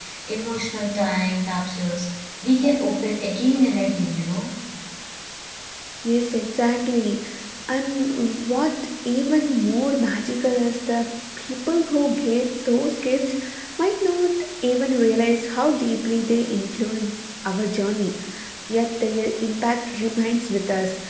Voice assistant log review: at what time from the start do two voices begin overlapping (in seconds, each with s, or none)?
none